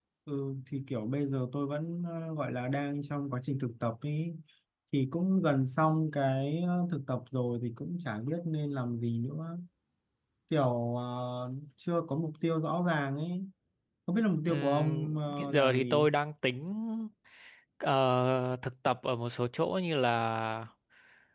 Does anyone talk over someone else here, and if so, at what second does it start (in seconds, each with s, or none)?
14.5 s